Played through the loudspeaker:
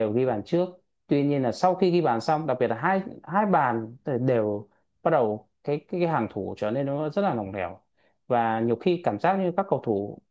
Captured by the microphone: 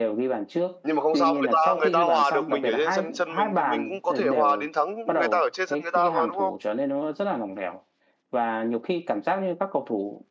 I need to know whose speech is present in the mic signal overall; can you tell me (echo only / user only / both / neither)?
both